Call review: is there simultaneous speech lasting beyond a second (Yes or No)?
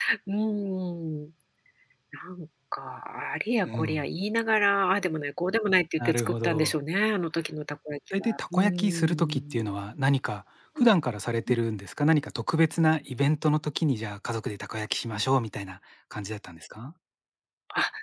Yes